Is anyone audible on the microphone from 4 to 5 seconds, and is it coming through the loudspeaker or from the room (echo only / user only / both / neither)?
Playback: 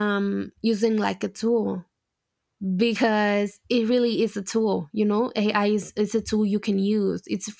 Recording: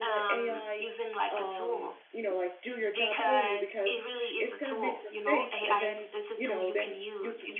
both